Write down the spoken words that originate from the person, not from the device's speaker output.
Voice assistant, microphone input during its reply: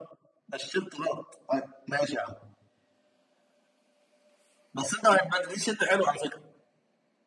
none

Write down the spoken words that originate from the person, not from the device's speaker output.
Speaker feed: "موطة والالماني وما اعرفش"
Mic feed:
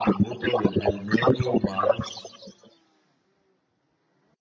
none

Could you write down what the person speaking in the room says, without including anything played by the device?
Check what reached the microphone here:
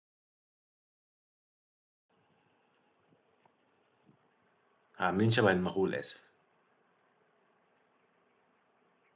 عاملين شبه المغول اسف

